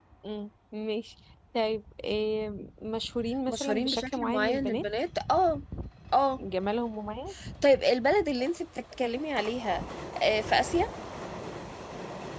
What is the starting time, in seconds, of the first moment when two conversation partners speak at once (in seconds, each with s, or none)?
3.5 s